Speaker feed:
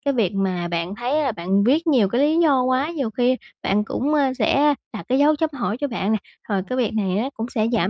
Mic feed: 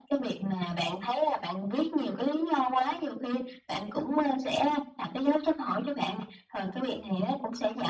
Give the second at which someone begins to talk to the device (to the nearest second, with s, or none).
none